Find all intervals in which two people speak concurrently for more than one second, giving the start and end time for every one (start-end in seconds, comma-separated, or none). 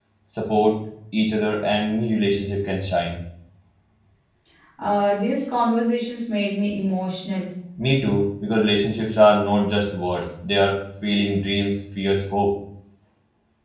none